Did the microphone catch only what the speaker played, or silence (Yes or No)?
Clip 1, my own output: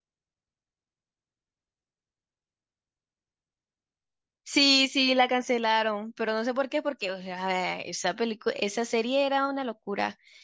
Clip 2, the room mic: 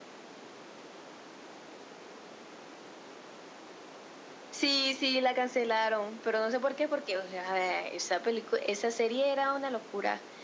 Yes